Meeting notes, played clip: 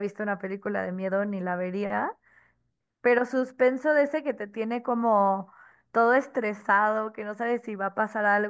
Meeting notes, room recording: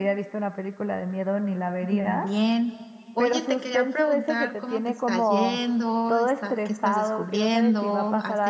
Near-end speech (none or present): present